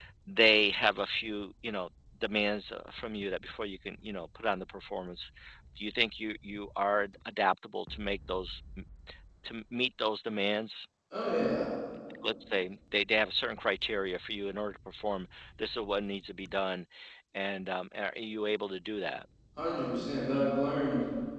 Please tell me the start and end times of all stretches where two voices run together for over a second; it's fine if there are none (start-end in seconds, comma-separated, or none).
none